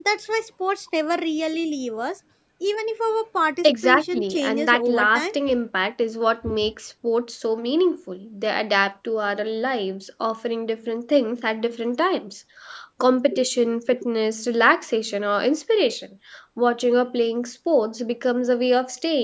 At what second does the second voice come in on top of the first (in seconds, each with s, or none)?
3.6 s